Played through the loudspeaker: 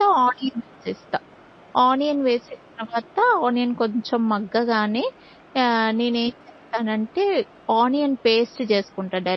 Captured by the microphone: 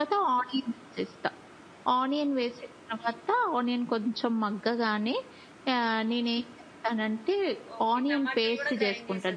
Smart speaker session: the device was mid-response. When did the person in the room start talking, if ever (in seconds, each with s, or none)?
7.8 s